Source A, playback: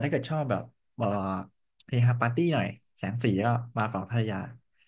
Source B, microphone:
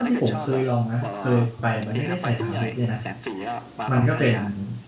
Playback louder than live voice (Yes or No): No